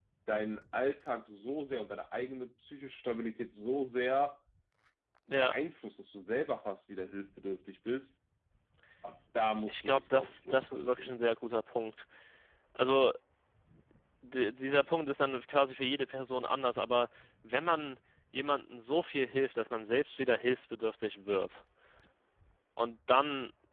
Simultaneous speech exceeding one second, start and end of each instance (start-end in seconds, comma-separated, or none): 9.7-11.2